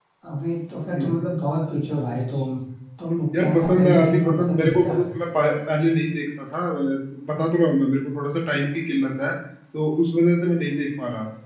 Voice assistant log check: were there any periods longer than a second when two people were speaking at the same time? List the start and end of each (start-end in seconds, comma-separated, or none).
3.4-5.0